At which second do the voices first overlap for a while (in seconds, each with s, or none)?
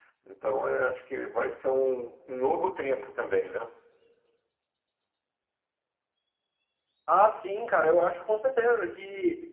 none